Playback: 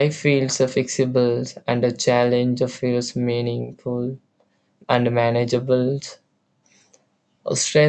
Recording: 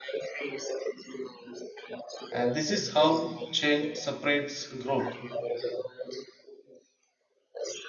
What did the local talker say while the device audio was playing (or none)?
and this is how change separates growth